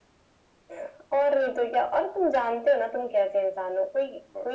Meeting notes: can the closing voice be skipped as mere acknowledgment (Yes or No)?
Yes